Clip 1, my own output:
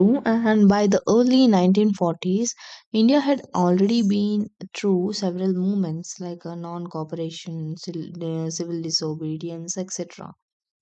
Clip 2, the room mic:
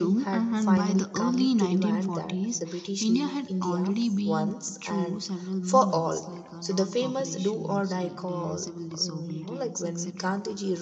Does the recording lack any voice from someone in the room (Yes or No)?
No